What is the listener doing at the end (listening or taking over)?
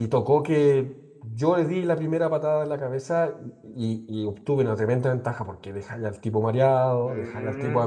taking over